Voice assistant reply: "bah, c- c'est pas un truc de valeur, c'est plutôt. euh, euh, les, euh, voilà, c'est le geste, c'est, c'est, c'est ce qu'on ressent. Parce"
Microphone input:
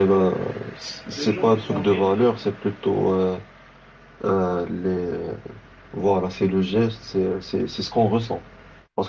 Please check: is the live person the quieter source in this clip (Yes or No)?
Yes